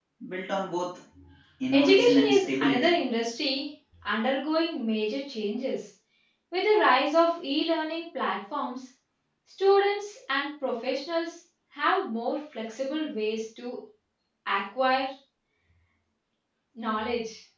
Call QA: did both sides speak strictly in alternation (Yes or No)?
No